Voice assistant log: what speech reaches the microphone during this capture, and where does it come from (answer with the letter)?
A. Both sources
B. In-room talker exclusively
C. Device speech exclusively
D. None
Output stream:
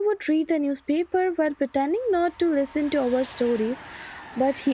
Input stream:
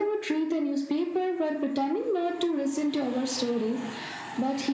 C